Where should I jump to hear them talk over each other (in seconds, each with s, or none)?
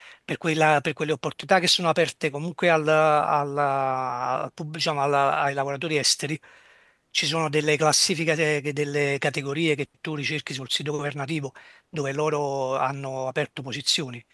none